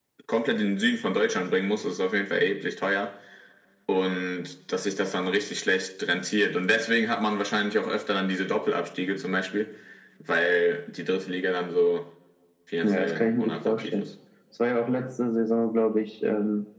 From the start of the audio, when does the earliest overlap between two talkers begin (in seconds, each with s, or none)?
12.8 s